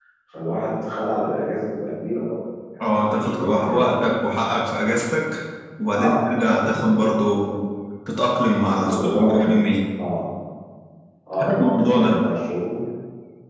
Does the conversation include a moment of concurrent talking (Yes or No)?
Yes